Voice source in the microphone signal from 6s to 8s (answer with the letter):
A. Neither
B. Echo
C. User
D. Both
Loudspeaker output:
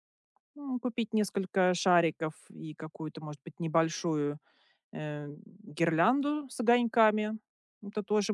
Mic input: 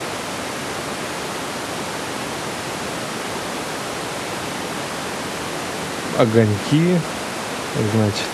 C